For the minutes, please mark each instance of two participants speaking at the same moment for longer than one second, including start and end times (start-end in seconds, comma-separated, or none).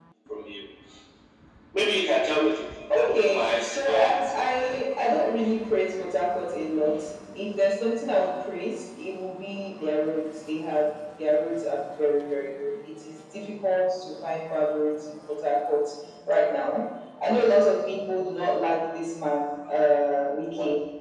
3.0-4.4